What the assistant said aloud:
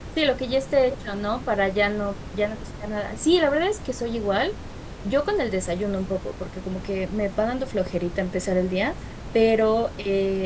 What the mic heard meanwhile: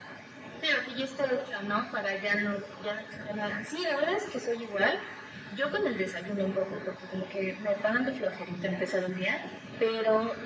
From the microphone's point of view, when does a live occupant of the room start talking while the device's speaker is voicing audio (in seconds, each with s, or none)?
none